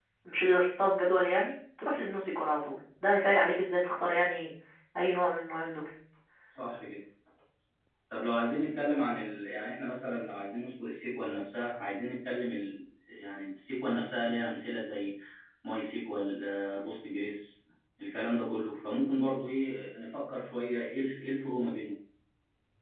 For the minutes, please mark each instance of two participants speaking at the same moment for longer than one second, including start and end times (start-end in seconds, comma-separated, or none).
none